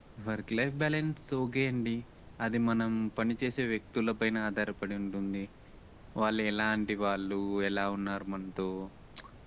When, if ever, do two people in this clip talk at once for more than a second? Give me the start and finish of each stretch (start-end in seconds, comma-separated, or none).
none